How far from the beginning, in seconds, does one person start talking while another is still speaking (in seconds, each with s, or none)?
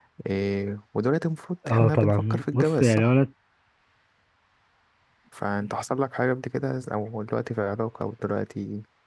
1.6 s